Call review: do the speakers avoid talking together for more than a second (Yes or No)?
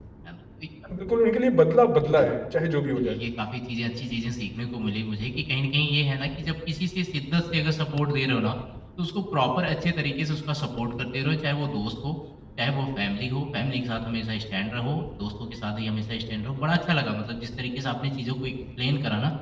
Yes